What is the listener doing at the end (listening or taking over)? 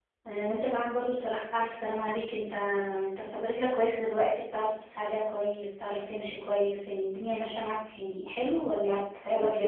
taking over